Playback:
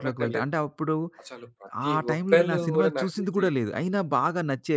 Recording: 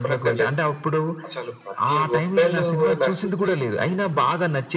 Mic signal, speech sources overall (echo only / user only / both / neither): echo only